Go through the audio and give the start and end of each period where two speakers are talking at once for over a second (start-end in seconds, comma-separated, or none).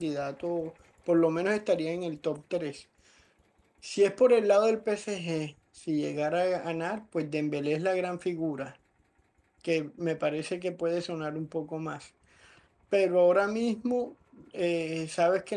none